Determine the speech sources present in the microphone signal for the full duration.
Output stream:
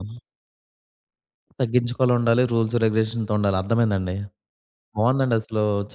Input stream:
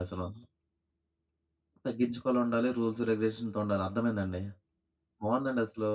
echo only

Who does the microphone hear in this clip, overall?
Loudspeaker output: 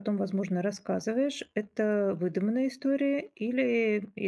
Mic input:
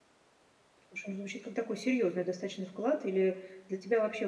user only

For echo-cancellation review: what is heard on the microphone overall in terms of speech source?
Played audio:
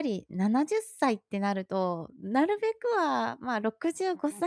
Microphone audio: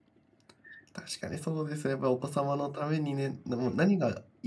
user only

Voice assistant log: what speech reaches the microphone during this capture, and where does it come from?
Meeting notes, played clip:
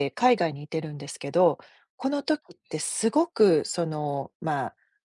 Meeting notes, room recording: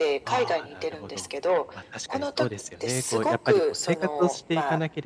both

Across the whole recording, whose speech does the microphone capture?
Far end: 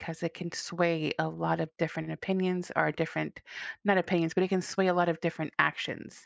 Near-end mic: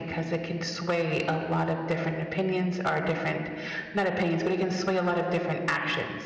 echo only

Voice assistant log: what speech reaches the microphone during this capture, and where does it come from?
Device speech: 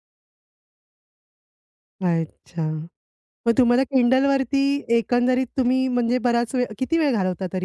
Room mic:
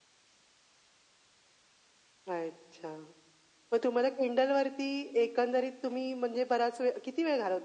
echo only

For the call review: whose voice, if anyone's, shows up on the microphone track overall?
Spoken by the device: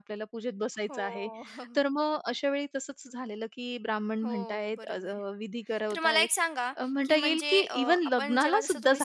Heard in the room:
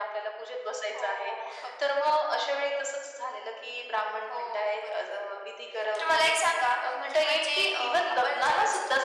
echo only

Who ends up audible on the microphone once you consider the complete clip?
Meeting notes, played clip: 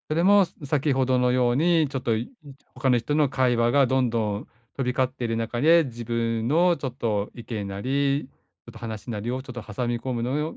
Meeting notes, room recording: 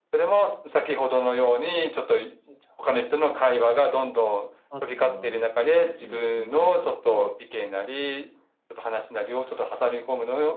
both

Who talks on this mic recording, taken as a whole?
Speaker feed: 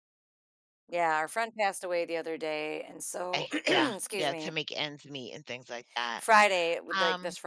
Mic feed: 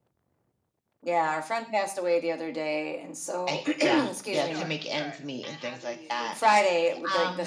both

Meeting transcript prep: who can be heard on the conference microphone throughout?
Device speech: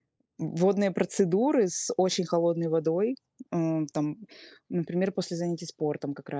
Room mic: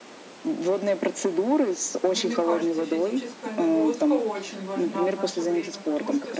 both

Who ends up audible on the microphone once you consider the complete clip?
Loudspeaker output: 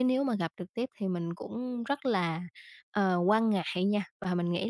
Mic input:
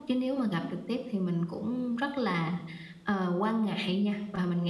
echo only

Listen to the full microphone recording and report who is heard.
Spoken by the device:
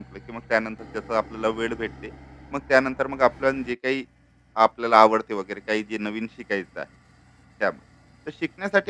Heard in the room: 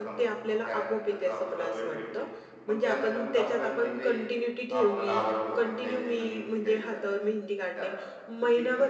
both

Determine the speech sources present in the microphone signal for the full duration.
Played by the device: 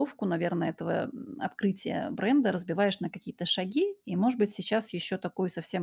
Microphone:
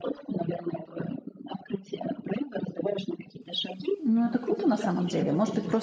both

